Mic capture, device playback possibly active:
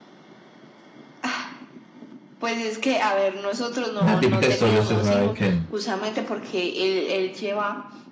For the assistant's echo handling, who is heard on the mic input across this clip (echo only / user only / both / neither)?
both